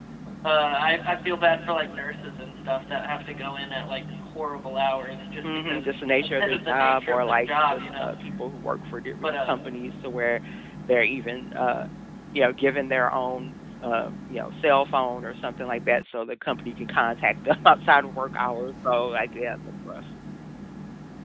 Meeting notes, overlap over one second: present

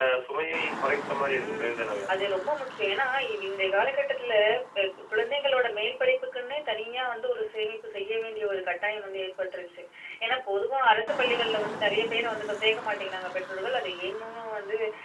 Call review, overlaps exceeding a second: none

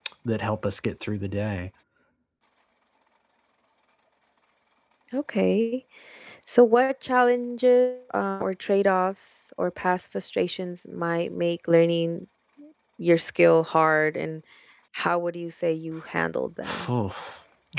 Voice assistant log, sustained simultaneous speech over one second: none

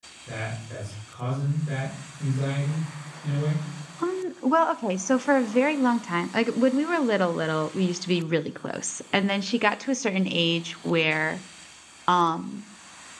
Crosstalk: none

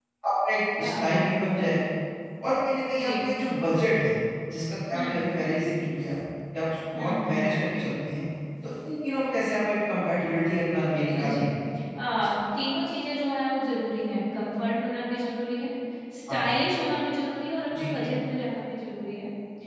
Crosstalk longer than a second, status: none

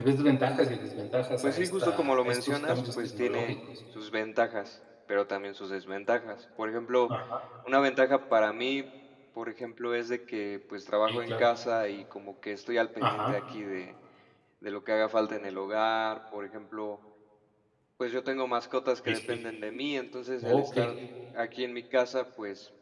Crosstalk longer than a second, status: present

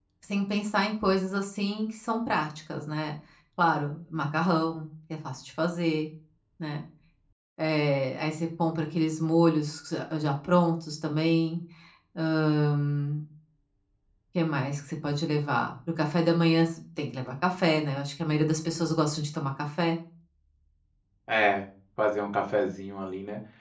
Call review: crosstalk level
none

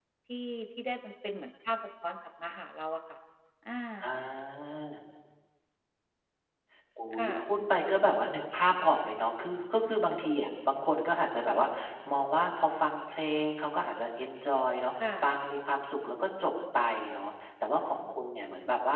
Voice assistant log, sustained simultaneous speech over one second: none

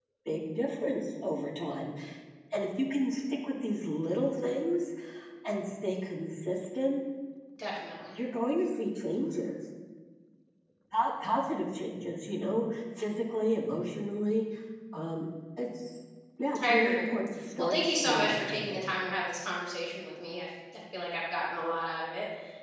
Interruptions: present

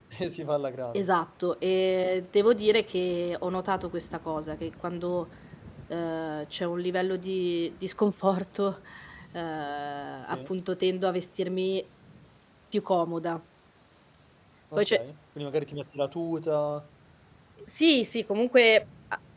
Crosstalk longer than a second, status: none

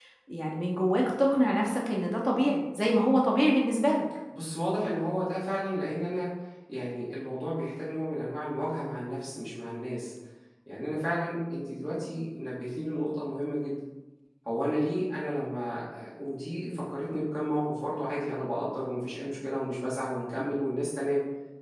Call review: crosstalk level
none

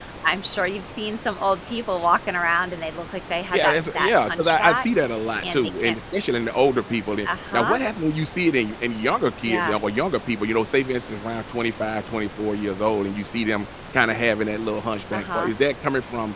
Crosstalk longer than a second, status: present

